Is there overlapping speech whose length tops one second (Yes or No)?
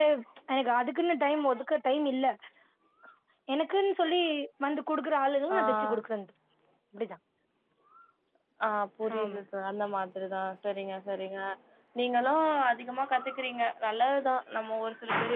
No